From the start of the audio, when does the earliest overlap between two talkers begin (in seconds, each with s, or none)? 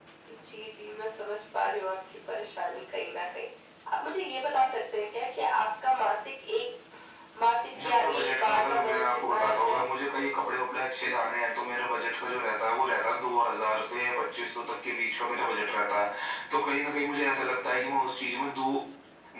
7.8 s